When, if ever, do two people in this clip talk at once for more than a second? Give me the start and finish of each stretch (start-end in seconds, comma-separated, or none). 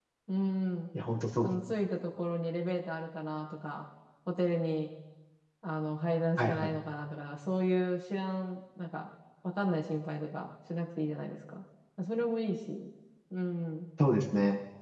none